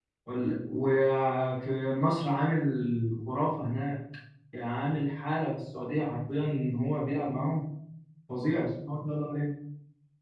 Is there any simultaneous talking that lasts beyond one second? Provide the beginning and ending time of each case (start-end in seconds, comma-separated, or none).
none